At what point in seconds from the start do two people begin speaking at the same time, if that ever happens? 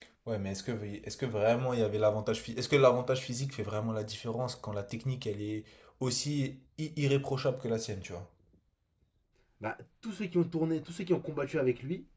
none

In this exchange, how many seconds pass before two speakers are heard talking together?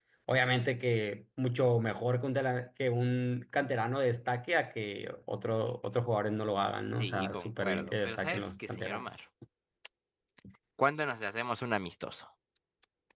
7 s

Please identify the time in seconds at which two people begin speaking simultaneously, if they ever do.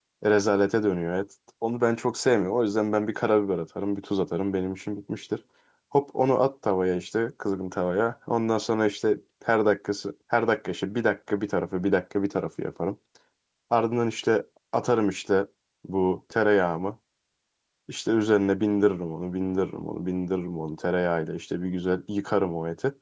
none

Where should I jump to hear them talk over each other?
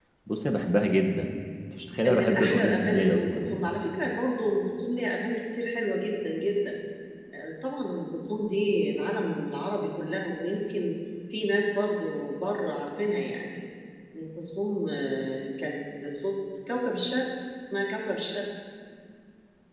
2 s

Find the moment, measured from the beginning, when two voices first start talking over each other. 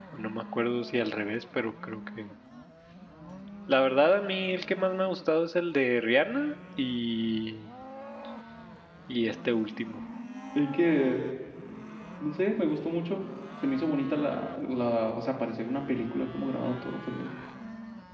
none

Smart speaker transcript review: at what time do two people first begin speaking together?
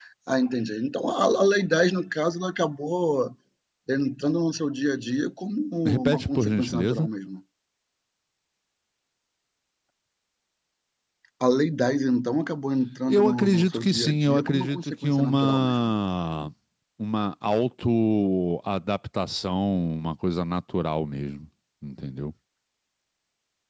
6 s

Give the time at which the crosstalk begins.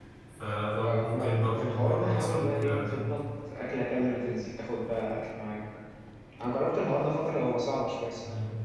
1 s

